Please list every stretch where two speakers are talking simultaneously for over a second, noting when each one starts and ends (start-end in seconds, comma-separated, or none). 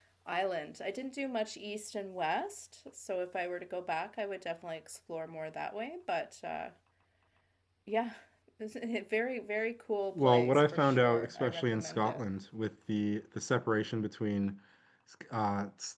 10.2-12.2